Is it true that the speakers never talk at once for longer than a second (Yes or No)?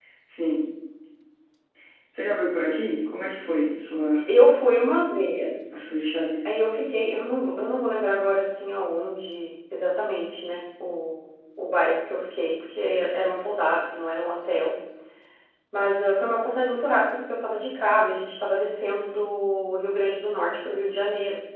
Yes